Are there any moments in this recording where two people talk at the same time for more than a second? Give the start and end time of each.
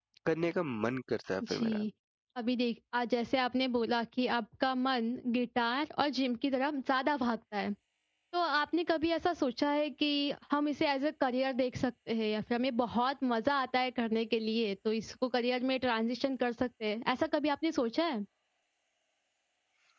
none

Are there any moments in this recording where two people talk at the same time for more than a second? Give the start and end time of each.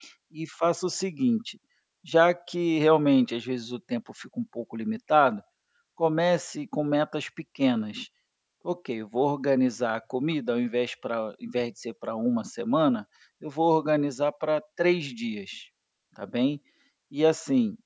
none

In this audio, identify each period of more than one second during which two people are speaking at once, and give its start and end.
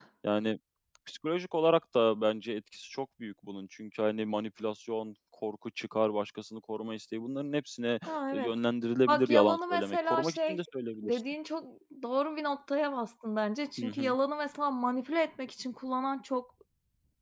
9.1-10.6

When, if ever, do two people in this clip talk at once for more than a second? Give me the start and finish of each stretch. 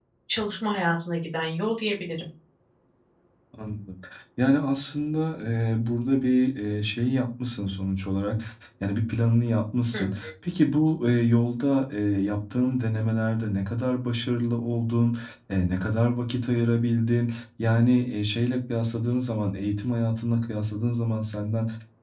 none

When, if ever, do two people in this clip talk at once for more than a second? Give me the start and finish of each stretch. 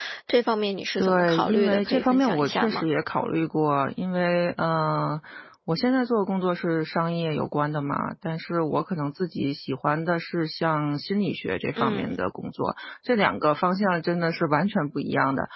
1.0-2.9

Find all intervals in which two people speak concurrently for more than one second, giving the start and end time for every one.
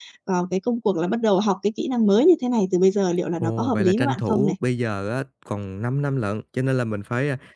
3.3-4.5

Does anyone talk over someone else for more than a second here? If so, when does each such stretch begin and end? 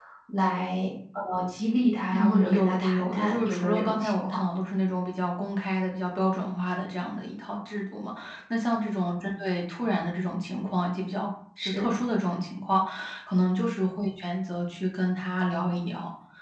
2.1-4.4

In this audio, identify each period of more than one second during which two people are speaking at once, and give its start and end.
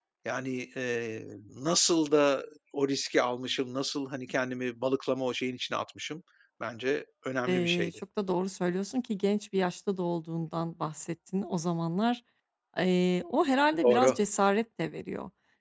none

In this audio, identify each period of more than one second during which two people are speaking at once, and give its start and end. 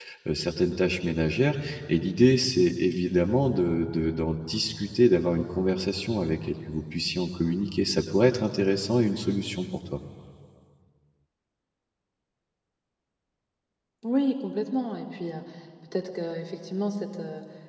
none

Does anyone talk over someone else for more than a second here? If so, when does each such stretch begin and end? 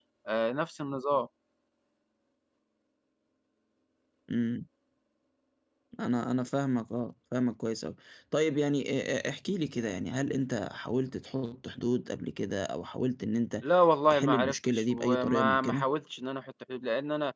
14.1-15.9

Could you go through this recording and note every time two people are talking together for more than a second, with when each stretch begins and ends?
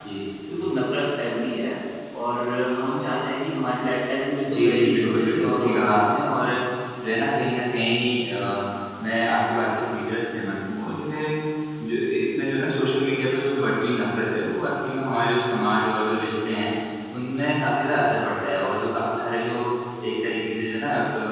4.5-6.0

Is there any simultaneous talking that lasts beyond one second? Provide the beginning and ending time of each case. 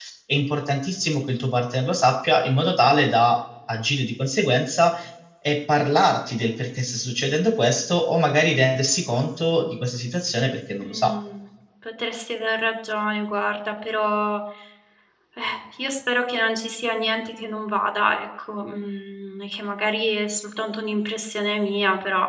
none

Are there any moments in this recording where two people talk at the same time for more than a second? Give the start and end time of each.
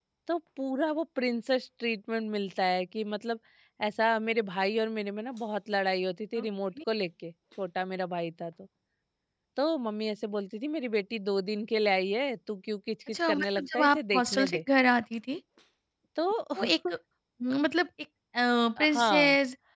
13.1-14.6

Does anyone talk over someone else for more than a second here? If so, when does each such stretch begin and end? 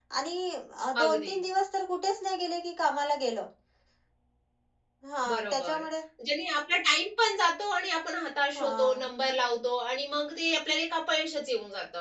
none

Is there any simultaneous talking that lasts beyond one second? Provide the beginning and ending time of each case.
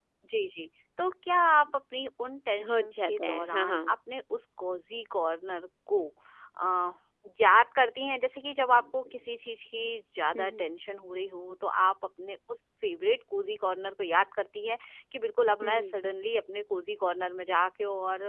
2.7-3.9

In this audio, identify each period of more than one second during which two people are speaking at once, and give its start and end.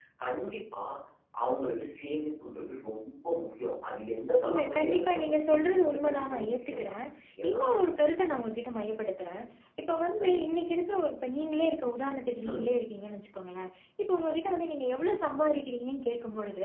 4.5-6.9

